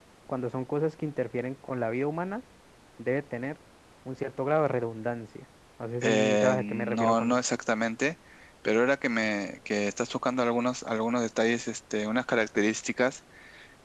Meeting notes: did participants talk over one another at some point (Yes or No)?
Yes